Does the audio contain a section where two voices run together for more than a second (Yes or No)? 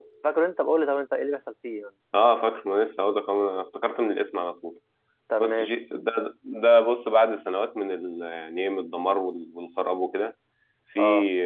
No